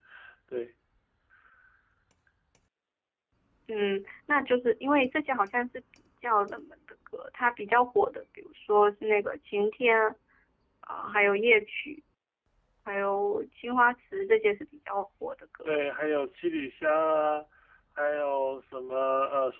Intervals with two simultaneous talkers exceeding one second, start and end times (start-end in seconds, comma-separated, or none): none